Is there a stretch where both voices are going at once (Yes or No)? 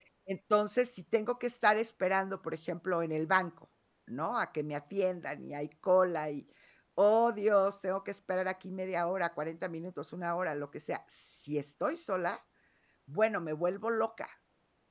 No